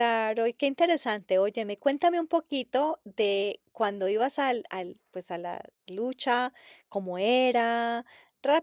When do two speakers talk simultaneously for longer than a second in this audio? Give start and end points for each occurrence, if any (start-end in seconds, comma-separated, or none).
none